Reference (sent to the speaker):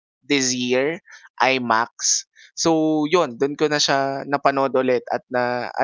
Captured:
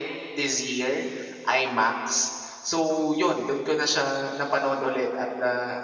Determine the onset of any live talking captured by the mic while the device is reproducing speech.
none

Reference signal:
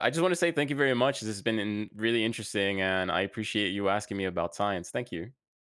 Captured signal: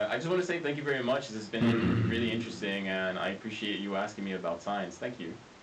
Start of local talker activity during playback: 1.6 s

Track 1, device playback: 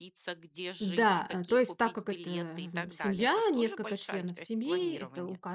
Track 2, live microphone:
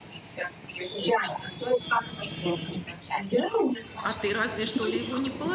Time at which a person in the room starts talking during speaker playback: 4.0 s

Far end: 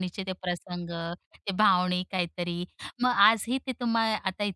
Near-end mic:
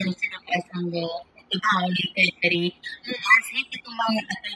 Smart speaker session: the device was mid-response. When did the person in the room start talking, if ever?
none

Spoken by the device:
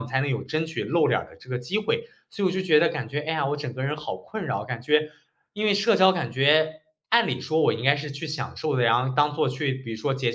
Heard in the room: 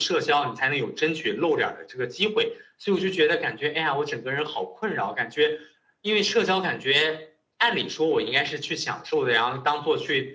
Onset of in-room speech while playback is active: none

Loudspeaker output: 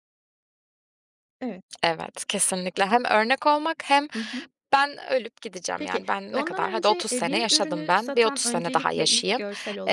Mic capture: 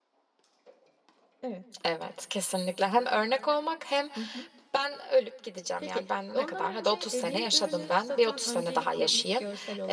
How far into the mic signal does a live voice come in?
none

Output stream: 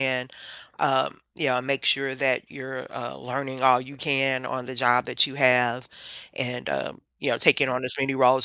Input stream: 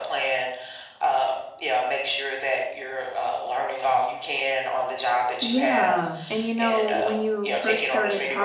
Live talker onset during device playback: 5.4 s

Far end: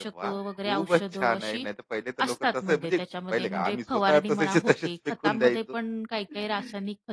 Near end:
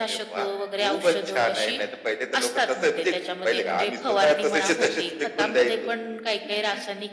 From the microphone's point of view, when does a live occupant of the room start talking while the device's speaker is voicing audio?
none

